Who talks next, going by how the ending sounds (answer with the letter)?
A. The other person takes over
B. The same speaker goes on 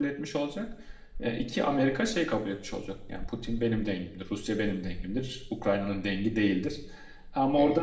B